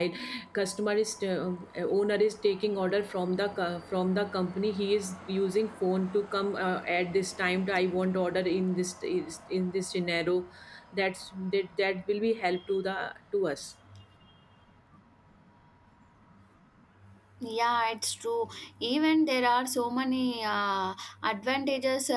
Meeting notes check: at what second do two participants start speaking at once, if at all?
none

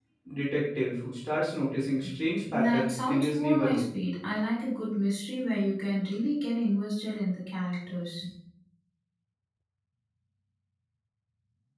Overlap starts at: 2.5 s

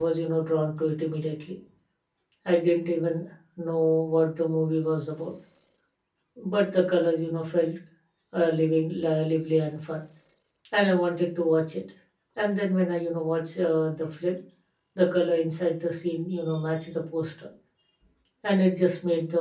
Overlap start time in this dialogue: none

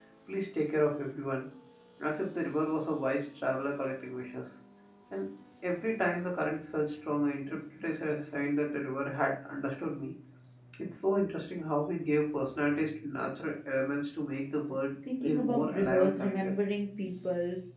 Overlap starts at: 15.1 s

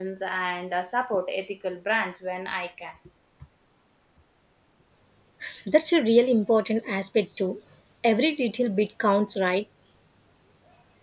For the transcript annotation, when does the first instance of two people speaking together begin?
none

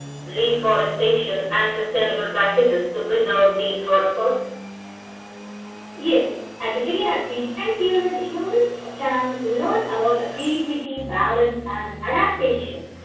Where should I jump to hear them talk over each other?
none

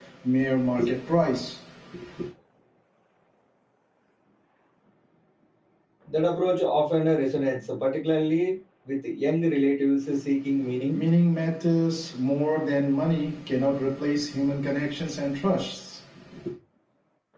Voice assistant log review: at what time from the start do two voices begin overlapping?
none

